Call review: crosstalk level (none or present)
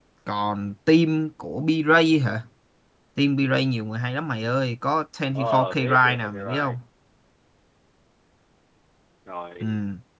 present